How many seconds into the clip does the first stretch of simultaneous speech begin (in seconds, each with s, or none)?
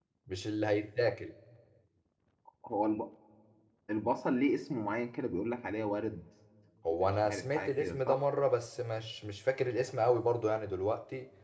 6.9 s